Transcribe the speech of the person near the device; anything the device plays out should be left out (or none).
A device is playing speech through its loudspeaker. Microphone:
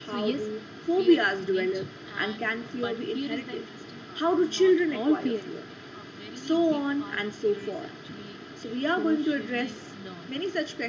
none